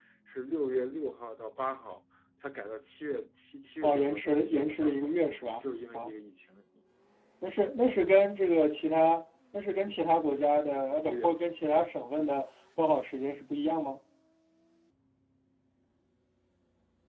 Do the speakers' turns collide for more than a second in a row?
Yes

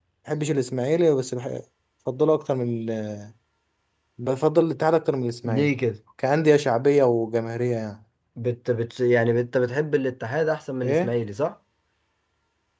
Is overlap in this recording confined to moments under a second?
Yes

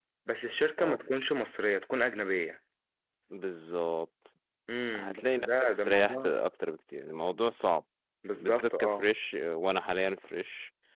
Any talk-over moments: Yes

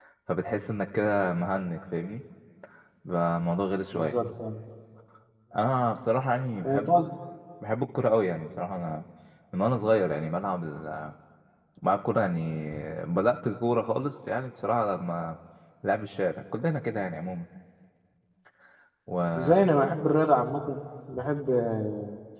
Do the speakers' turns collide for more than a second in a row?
No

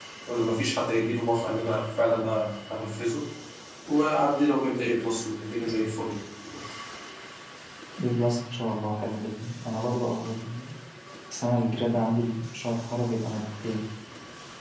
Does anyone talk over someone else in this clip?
No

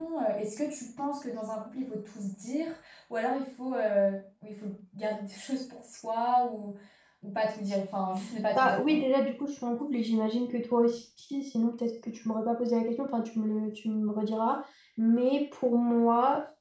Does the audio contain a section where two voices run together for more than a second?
No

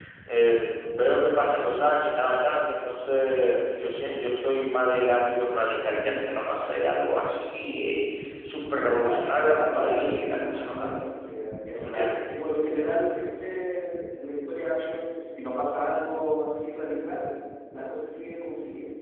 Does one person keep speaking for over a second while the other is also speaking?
Yes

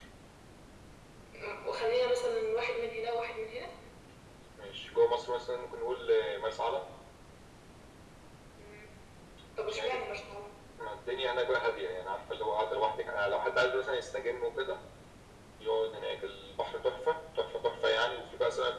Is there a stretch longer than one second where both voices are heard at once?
No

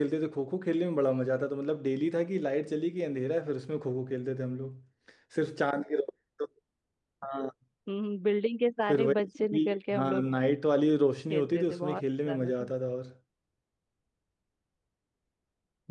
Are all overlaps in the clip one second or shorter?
No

